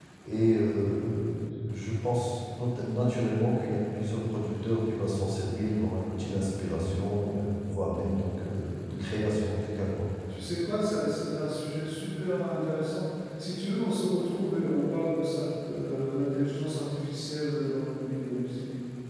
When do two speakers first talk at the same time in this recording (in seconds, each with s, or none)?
none